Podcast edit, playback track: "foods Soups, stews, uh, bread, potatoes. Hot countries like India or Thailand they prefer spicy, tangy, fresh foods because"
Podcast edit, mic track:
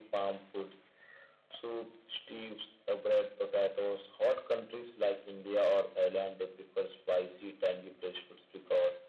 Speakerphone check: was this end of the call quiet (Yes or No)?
Yes